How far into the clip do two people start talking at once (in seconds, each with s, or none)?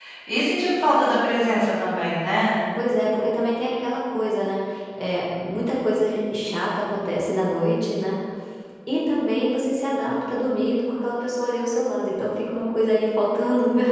none